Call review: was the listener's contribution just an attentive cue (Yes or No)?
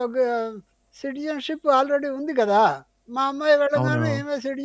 Yes